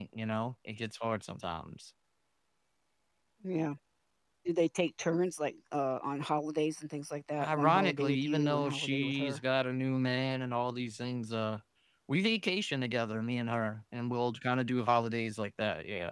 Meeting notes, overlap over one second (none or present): present